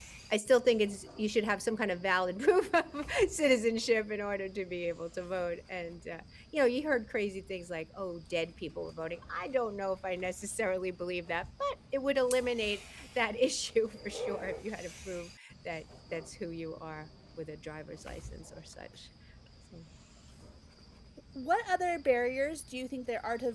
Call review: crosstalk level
none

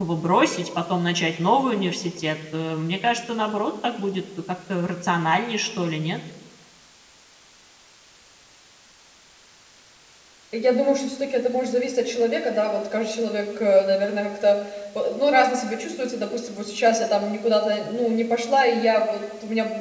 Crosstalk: none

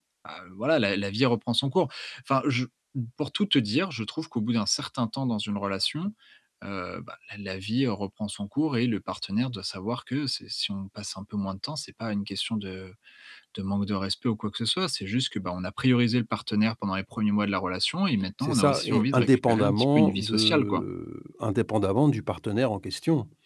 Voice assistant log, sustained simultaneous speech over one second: present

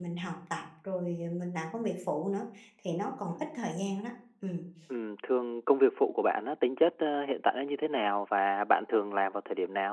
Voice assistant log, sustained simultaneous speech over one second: none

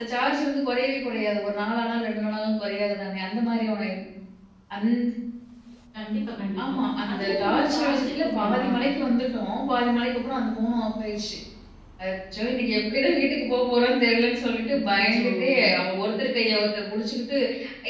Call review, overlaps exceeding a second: present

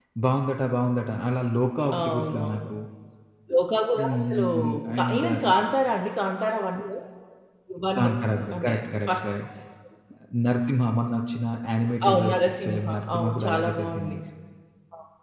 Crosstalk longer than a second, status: present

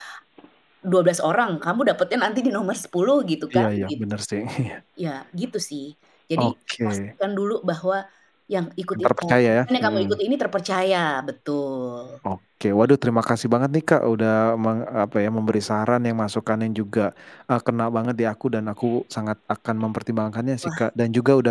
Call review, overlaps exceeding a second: present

